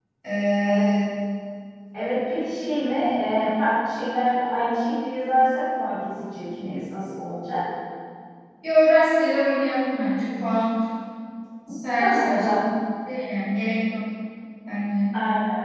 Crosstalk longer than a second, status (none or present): none